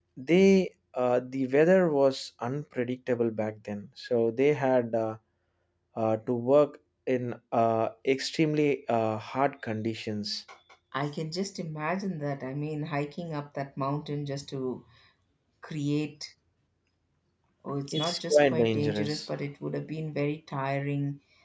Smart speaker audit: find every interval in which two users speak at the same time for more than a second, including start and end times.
17.9-19.2

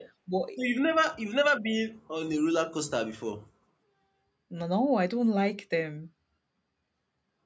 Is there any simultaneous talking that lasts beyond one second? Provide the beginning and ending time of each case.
none

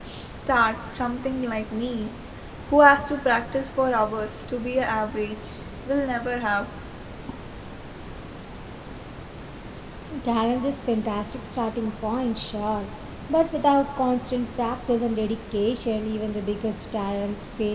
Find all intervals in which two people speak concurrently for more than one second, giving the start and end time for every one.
none

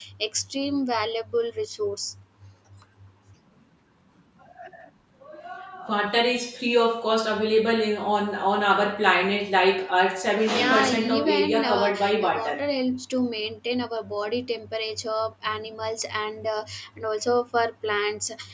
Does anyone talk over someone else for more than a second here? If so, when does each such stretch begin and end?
10.5-12.6

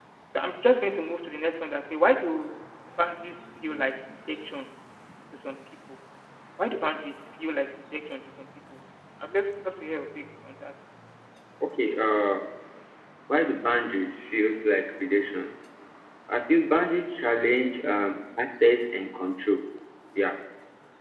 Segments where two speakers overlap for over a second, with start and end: none

